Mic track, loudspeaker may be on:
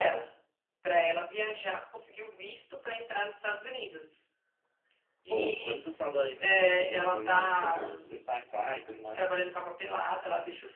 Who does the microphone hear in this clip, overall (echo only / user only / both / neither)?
both